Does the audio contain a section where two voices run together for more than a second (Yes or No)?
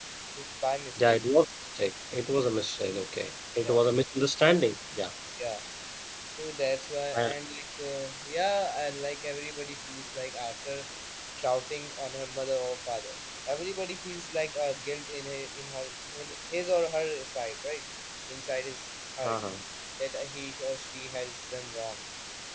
No